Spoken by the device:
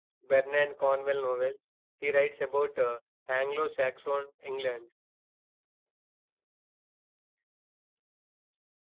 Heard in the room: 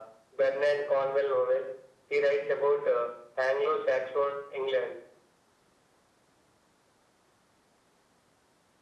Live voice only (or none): none